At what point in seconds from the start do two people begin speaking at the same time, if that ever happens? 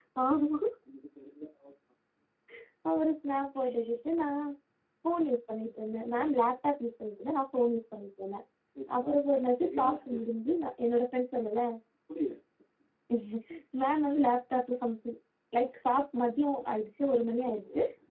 9 s

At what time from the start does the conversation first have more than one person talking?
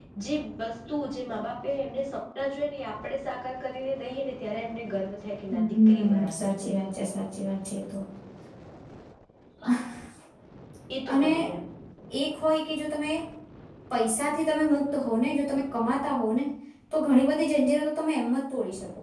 6 s

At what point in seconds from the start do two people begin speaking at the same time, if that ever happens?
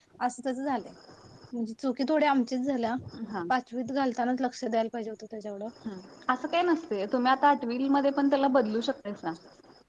none

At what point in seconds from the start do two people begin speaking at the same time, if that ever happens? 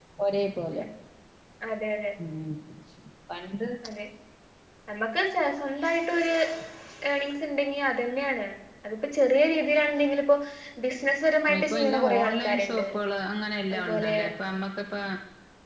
11 s

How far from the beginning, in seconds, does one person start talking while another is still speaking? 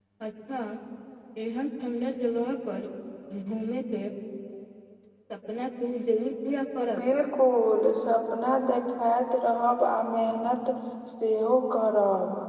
none

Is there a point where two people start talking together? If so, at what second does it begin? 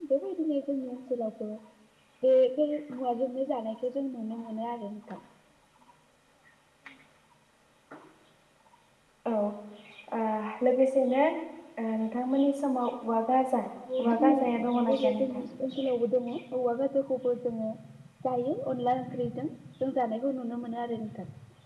14 s

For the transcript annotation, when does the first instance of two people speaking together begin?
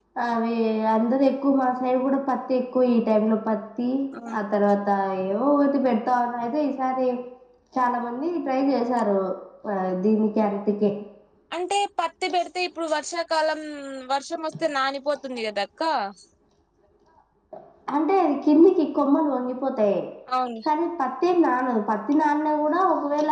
none

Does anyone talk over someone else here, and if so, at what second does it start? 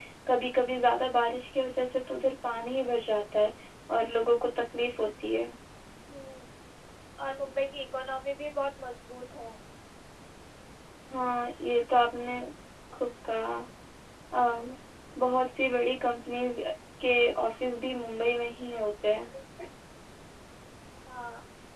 none

